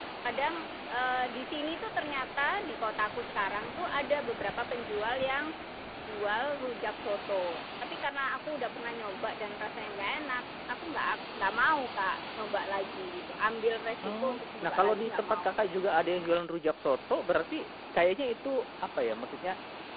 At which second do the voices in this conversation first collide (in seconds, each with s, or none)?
14.0 s